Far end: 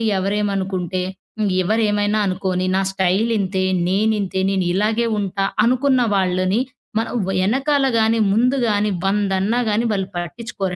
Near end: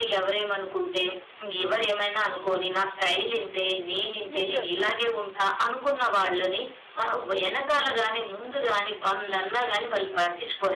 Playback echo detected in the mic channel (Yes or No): Yes